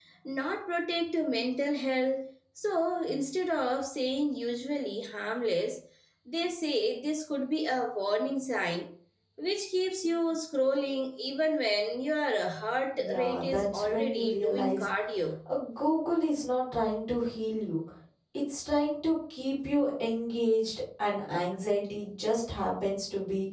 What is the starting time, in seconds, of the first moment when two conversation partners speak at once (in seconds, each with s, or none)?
12.9 s